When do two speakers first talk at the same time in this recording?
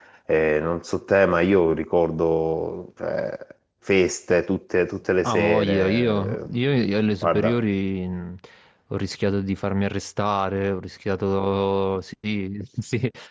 5.3 s

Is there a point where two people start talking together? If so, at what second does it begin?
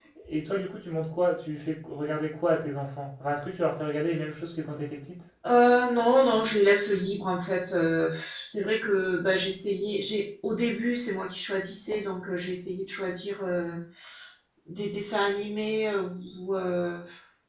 none

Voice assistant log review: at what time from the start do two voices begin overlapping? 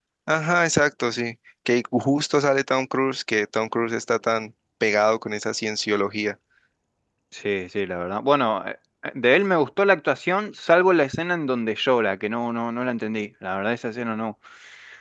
none

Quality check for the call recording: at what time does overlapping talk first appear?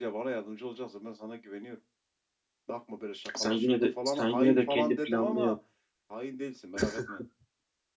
3.4 s

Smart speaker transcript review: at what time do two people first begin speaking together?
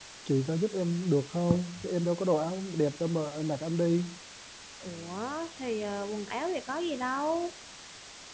none

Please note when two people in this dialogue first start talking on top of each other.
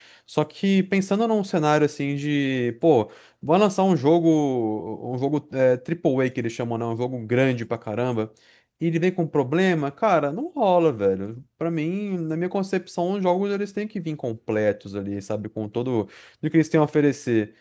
none

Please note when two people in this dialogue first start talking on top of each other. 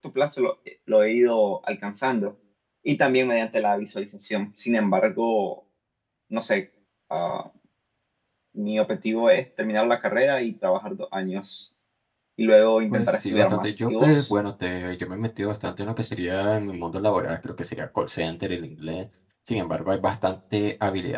12.9 s

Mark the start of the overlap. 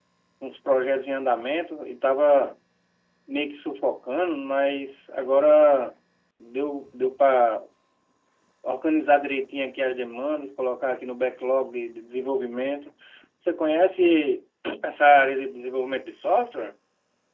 none

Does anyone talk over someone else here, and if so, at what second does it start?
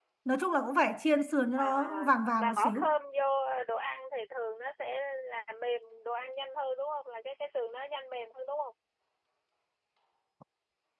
1.6 s

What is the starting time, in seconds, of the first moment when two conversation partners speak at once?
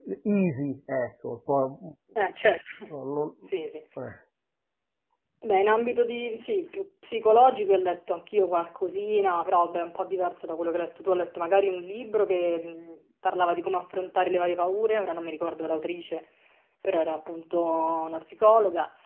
none

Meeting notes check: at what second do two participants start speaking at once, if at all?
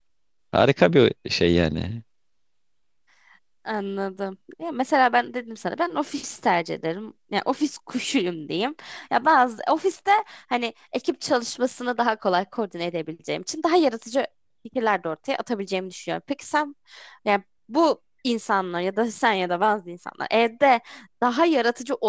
none

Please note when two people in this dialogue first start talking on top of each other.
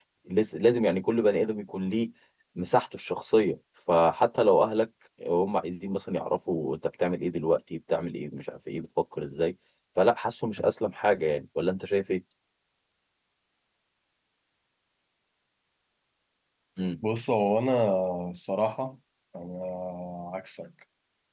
none

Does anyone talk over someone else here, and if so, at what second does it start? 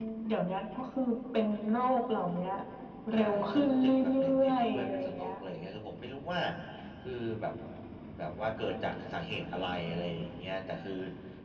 3.1 s

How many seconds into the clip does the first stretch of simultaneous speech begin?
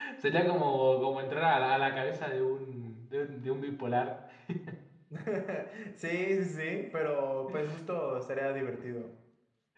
none

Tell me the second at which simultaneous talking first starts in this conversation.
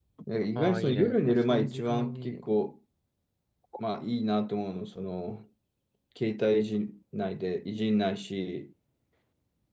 0.6 s

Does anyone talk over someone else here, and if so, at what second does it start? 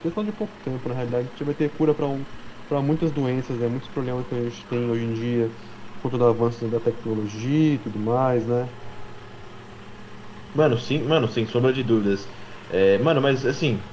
none

